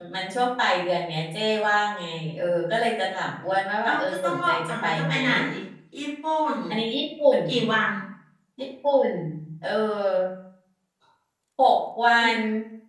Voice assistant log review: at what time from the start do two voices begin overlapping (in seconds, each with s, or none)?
3.9 s